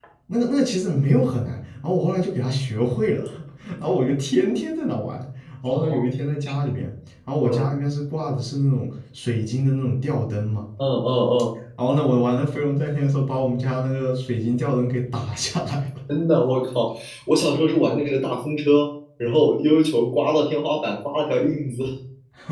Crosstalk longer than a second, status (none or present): none